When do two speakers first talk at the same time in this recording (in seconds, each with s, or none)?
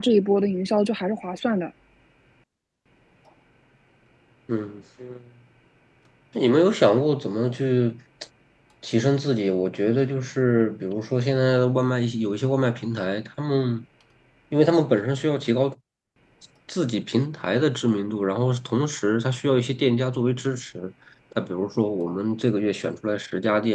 none